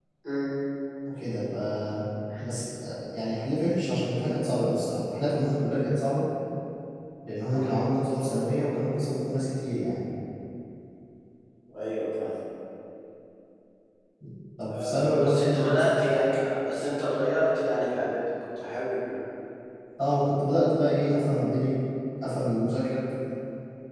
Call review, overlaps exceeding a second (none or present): present